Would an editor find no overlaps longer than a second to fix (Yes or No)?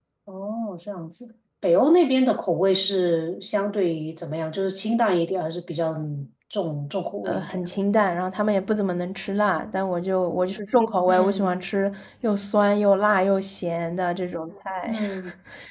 Yes